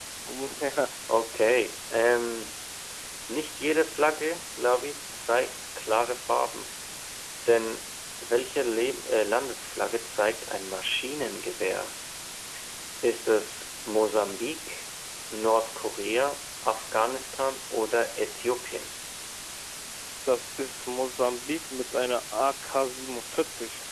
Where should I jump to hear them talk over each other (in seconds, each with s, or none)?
none